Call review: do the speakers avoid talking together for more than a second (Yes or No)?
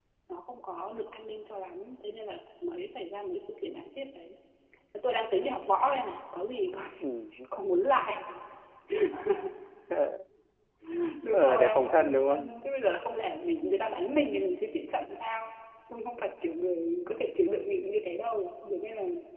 No